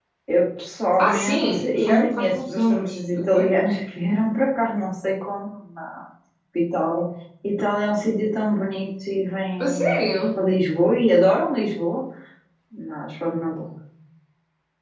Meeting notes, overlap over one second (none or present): present